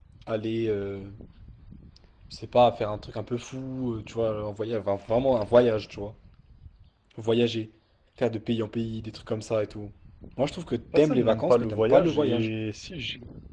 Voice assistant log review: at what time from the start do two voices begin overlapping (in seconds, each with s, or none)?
11.0 s